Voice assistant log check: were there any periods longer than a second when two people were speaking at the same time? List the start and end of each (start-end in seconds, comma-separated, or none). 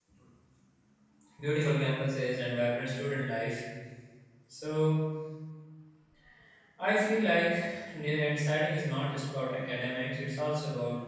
none